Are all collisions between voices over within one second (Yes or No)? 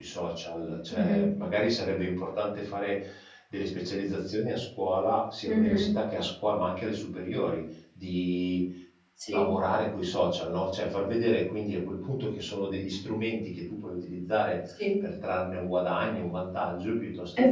Yes